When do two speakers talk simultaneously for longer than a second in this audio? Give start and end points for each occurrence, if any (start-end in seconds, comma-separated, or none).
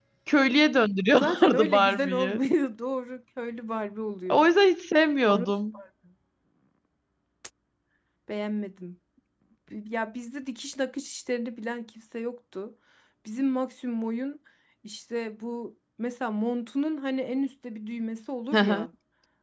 1.1-2.4